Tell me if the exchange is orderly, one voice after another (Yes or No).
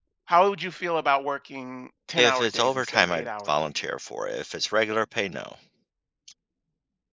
No